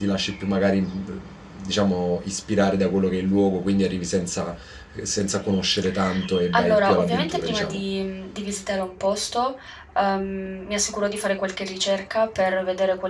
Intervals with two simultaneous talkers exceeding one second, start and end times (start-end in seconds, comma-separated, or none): 6.5-7.8